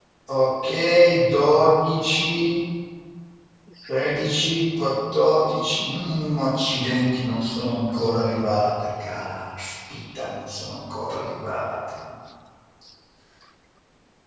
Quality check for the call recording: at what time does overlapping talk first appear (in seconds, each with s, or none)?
none